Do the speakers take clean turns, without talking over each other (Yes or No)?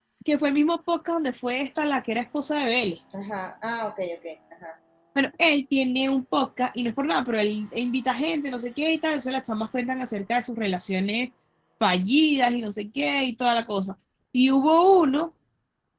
Yes